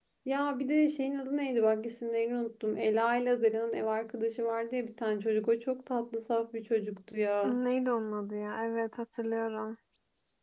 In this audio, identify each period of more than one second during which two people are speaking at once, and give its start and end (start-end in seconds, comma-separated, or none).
none